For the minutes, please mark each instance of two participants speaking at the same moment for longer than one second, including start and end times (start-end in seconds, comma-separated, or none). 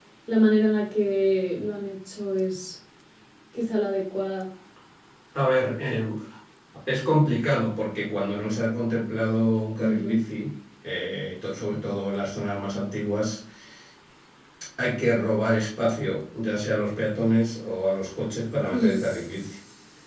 none